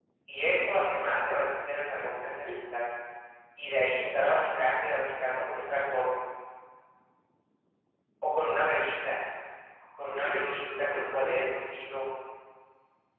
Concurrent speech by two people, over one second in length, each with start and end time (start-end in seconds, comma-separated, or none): 10.1-11.4